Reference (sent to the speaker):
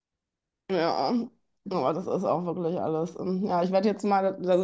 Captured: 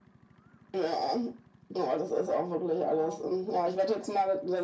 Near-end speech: present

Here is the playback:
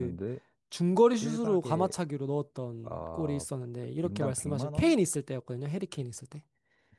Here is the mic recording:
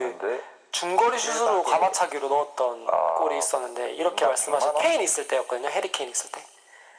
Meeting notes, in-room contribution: none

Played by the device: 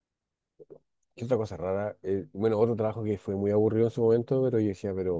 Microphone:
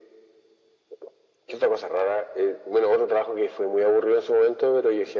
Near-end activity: none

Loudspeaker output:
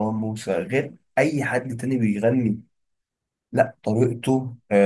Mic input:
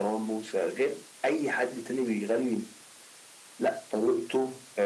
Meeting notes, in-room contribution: none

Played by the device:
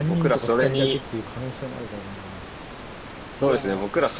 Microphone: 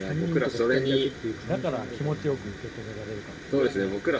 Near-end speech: present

